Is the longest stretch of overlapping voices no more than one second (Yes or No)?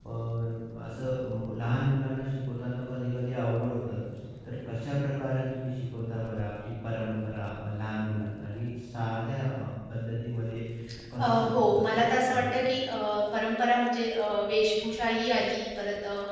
No